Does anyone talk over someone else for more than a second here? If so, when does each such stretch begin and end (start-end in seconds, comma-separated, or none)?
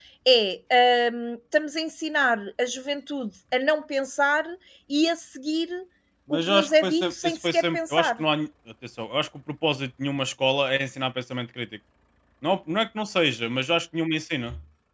6.3-8.2